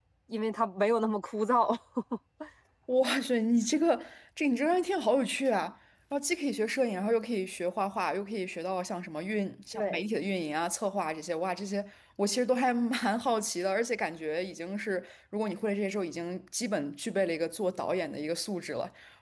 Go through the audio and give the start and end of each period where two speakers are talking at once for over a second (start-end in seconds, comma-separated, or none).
none